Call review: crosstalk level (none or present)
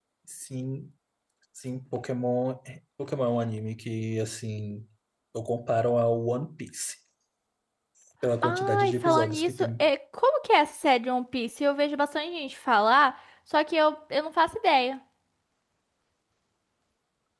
present